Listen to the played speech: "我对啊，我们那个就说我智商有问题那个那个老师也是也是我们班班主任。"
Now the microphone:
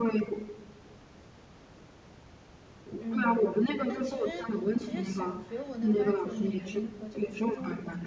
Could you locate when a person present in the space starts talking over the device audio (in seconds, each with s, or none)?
3.0 s